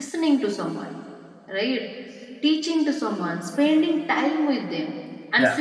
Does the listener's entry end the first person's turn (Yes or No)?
No